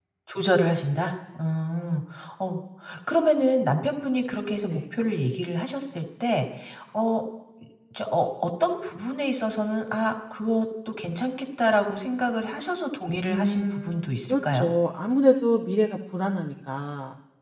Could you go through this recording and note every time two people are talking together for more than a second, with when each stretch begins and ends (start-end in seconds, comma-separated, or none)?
13.3-14.7